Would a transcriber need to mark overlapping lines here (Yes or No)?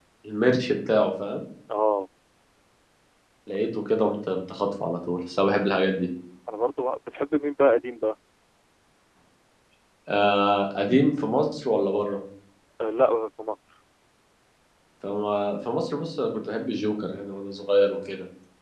No